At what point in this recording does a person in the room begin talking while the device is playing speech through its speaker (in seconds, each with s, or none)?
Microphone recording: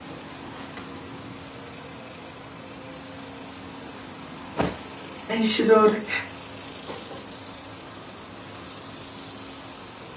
5.3 s